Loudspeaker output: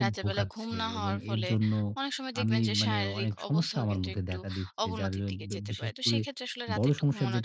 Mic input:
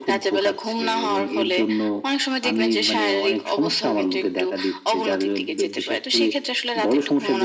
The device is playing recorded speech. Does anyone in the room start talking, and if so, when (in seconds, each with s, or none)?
none